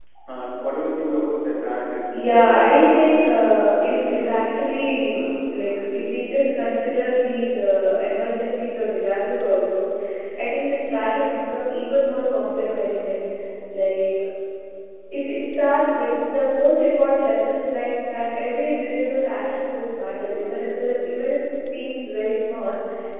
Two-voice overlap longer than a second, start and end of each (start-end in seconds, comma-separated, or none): 2.1-4.5